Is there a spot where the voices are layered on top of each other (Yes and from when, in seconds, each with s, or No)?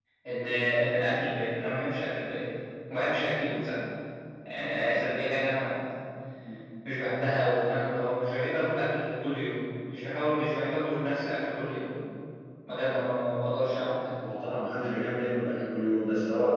No